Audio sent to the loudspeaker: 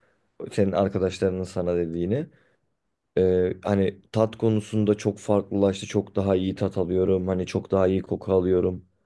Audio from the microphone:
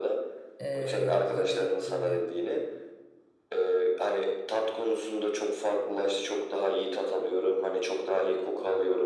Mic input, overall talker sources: both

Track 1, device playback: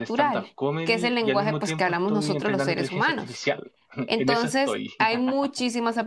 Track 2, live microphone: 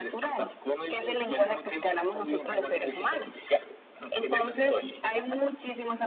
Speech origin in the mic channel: echo only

